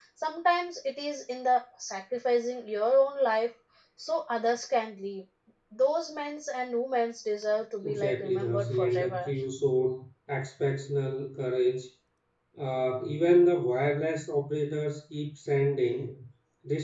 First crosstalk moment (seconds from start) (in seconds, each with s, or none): 7.8 s